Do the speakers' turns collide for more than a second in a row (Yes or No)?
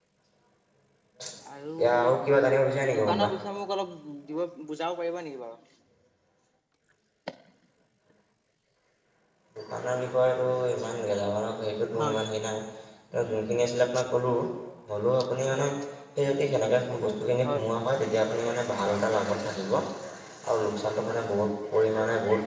No